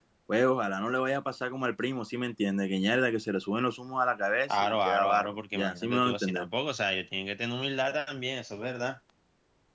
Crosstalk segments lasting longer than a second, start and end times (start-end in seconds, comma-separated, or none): 4.5-6.5